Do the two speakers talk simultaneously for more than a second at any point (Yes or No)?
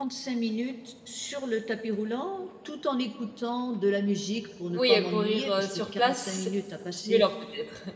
Yes